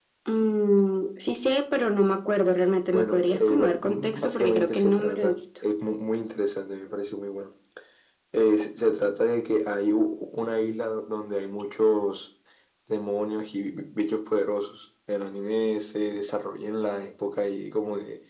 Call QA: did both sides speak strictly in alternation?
No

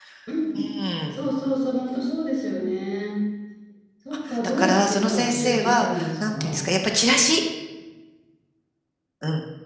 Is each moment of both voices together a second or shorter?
No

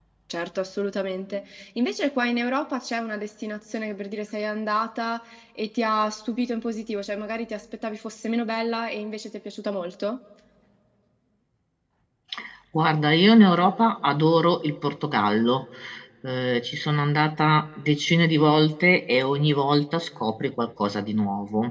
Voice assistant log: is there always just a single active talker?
Yes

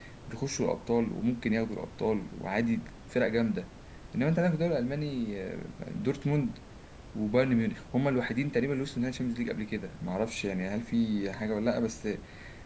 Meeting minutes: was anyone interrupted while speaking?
No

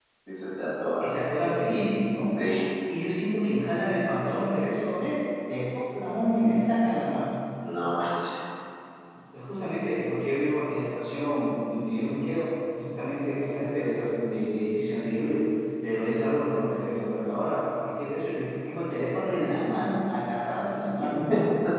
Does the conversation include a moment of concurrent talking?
No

